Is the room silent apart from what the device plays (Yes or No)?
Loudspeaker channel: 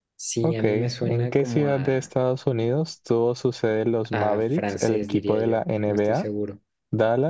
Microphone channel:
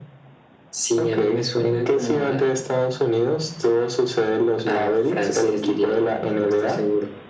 Yes